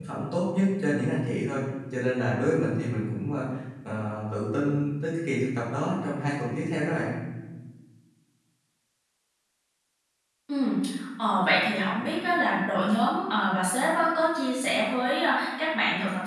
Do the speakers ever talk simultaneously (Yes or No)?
No